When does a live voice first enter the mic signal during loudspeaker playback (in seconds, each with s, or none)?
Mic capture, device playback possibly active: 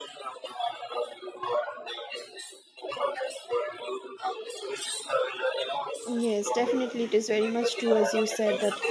6.0 s